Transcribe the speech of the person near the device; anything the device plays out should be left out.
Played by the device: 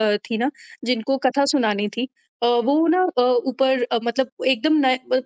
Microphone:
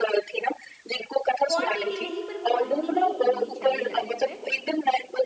क्वांटिटी नहीं पर क्वालिटी ही होनी चाहिए लाइफ में।

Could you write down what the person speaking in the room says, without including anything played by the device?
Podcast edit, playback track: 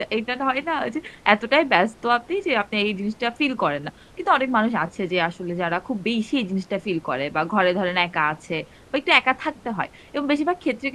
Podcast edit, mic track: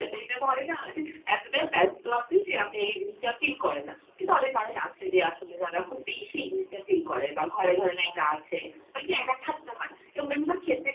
none

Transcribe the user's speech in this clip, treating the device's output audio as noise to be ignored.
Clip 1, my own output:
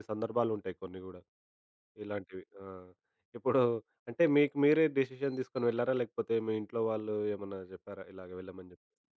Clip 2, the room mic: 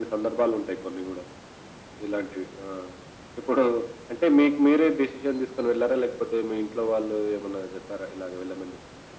none

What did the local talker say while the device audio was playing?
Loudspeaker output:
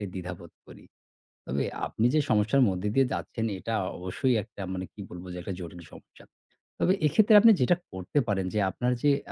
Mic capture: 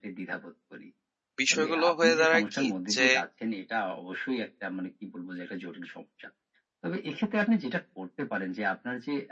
বিষয়গুলো হয়ে দাঁড়ায় কি যে

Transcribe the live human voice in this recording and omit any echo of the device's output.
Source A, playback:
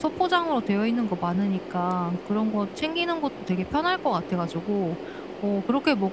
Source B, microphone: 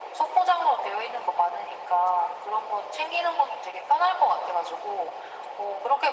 none

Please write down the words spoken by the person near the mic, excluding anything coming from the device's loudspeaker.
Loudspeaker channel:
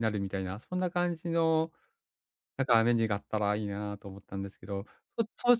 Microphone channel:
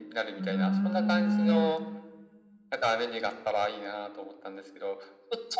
うーん。

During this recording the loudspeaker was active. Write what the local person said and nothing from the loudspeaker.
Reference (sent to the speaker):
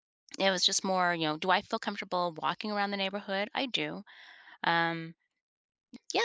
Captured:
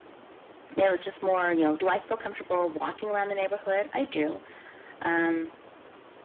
none

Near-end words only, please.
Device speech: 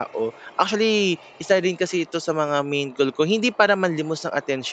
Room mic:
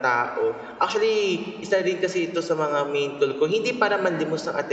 none

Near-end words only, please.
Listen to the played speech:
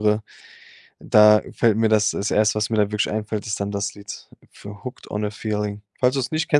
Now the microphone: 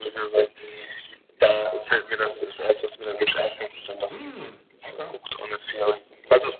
Hm, okay.

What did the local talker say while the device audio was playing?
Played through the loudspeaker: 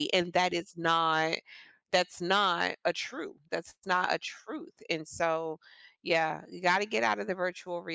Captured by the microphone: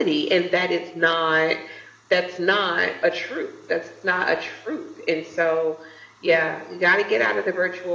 none

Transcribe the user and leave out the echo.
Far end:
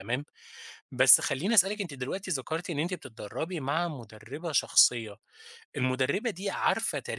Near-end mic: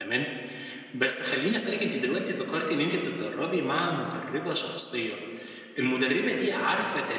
none

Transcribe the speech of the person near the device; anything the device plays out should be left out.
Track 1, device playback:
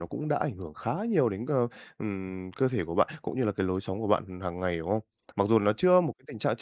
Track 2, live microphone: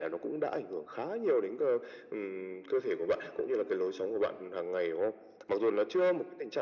none

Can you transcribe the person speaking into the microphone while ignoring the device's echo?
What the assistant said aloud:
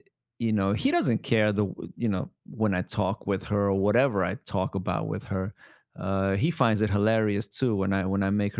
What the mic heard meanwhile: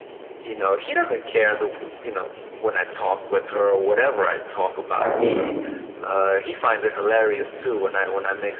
I think,

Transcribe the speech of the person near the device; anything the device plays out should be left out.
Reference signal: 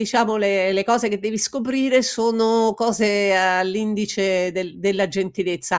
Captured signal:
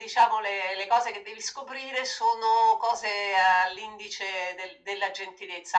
none

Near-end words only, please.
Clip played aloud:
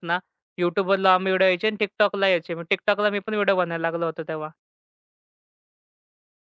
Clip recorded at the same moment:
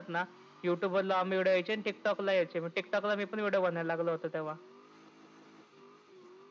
none

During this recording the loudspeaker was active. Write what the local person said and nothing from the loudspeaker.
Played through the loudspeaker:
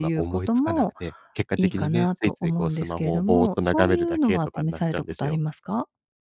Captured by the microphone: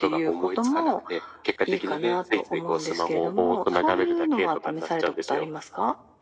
none

